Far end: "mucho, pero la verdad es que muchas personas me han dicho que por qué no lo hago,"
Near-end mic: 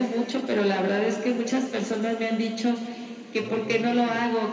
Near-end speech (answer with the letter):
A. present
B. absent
A